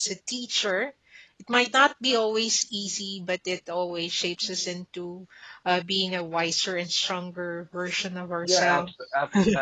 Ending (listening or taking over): taking over